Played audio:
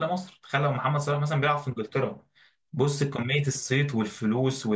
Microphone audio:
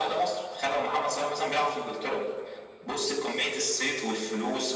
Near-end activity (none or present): none